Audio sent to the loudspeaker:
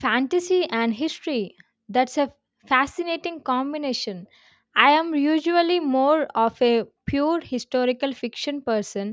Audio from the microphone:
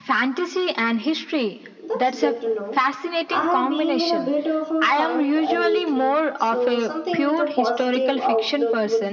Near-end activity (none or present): present